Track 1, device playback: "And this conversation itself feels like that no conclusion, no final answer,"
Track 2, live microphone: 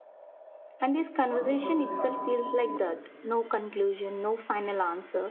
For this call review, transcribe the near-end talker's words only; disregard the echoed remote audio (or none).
wonder doesn't have to disappear.